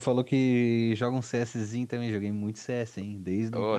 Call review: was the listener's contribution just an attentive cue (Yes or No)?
No